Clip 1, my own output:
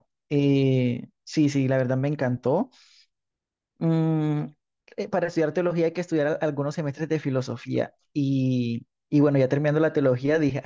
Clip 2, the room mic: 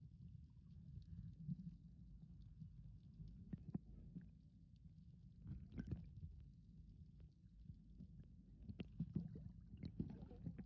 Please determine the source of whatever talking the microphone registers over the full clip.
neither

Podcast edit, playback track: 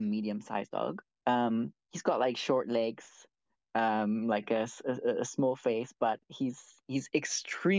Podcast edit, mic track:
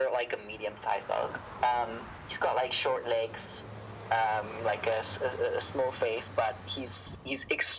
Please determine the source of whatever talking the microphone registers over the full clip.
echo only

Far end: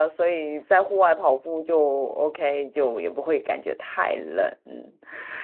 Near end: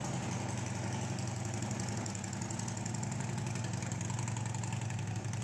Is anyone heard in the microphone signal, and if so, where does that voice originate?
neither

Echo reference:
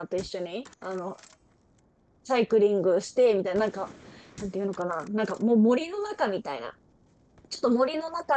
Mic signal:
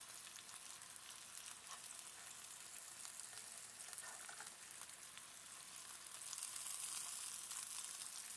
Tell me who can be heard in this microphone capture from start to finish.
neither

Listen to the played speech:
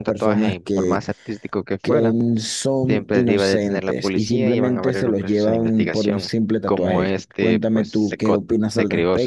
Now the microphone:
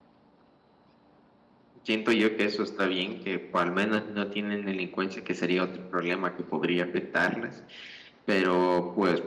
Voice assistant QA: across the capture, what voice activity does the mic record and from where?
user only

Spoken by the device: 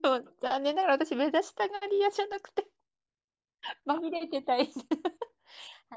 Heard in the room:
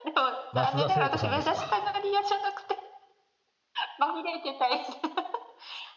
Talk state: both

